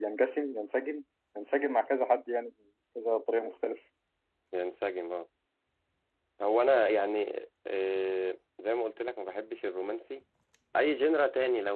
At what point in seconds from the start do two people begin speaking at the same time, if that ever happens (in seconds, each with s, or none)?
none